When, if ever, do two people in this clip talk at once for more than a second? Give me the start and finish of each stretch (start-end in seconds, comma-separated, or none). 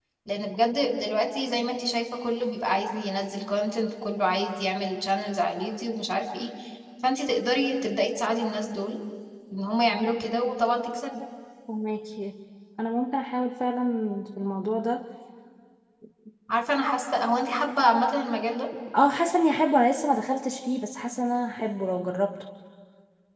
none